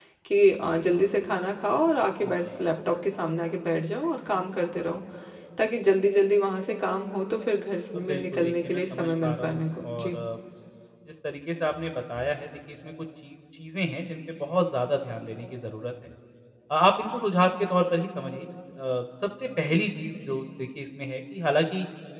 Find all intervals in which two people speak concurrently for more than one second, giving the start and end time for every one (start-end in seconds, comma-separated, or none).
8.0-10.2